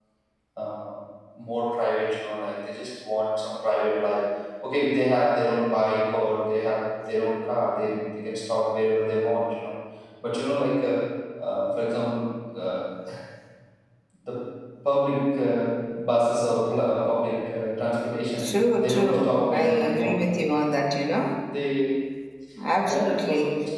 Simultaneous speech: Yes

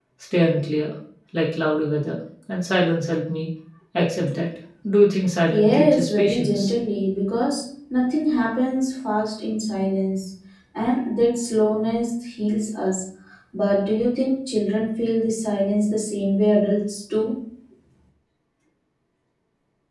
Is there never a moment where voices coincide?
No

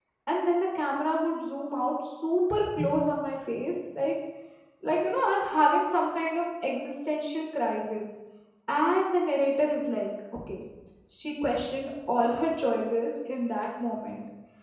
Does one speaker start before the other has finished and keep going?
No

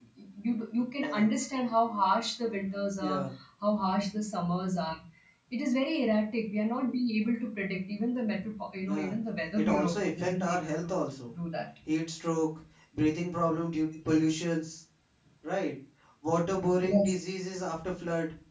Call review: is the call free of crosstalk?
No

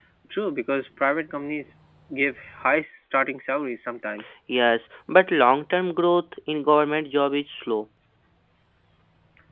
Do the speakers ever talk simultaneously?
No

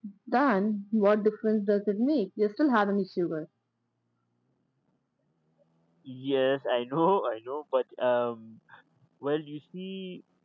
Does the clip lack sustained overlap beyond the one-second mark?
Yes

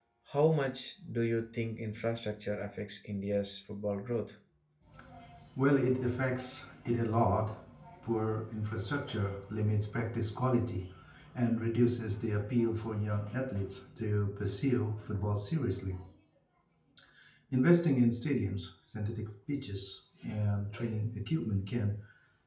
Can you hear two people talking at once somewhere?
No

